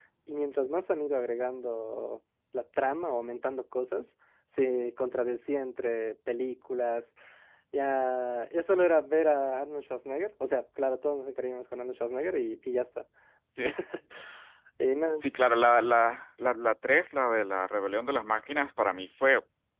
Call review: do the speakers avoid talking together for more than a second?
Yes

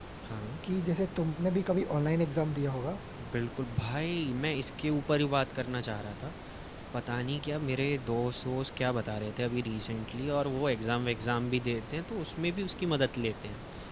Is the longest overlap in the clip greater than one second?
No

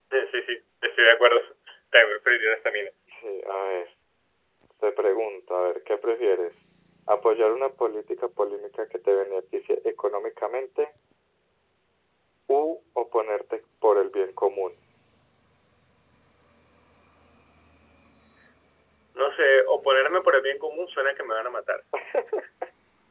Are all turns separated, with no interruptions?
Yes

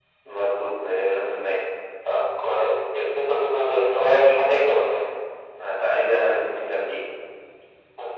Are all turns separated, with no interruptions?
Yes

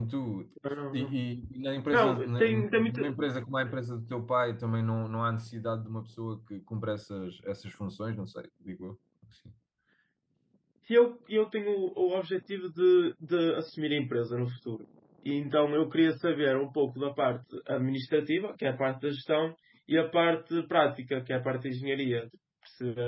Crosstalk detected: Yes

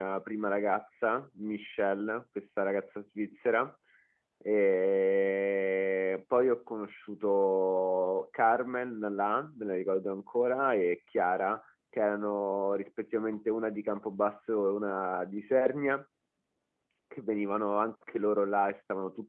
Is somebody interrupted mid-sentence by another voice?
No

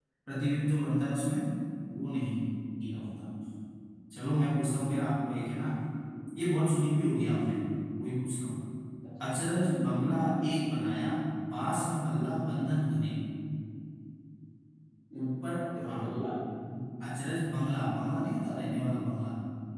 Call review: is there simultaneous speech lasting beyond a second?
No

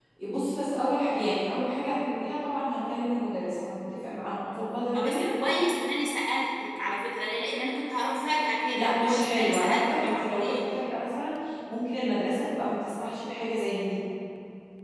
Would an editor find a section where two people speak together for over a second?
Yes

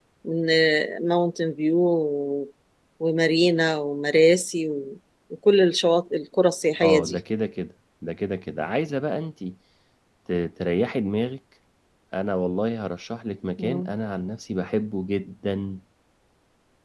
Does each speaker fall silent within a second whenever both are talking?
Yes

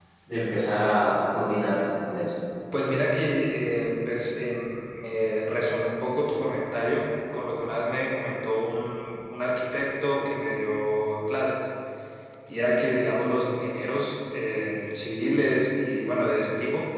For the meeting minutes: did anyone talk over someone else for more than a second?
No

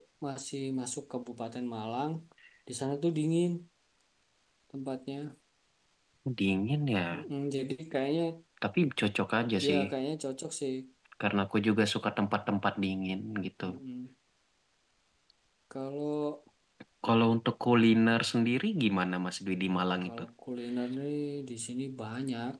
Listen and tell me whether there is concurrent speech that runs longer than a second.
No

